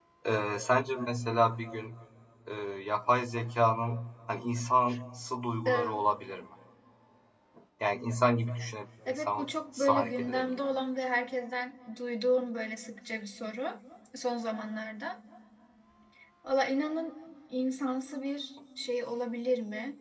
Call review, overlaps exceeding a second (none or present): present